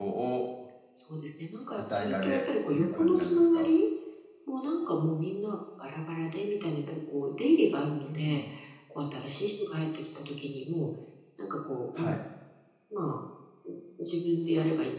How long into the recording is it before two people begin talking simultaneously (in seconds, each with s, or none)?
1.9 s